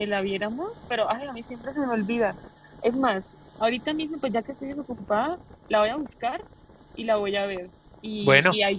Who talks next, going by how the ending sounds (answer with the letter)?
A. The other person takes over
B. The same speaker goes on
B